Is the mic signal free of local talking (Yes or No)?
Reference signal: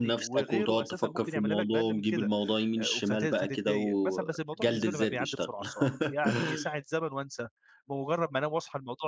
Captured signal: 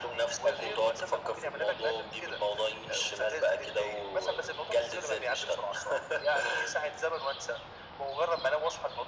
Yes